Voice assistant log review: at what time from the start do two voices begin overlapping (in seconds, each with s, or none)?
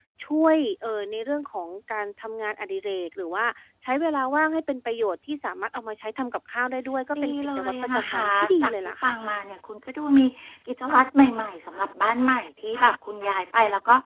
7.1 s